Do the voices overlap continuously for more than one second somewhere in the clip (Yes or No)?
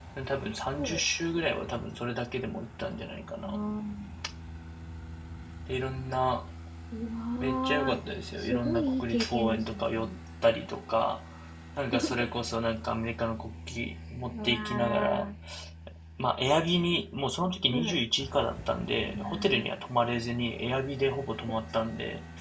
Yes